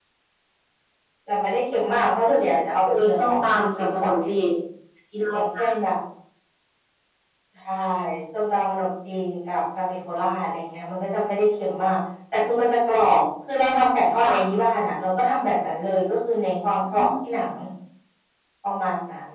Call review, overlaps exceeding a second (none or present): present